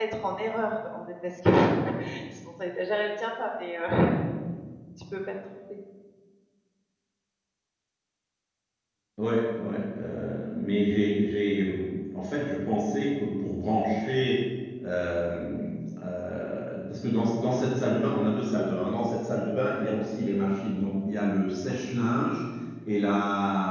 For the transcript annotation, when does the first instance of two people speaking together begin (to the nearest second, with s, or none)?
none